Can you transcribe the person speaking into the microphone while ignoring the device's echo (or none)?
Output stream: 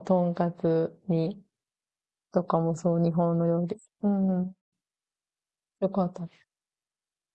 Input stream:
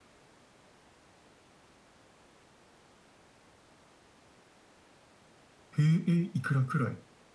えー、えーいくらくらい